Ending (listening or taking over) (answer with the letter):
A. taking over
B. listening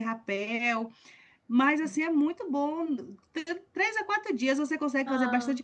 B